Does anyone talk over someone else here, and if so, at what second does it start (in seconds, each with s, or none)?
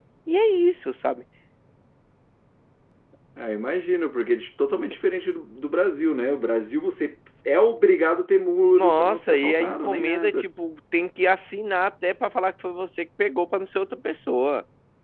8.7 s